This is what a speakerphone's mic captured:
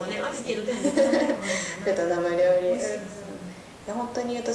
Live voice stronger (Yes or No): No